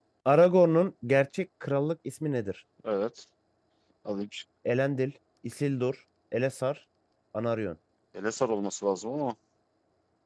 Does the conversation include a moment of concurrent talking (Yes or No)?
No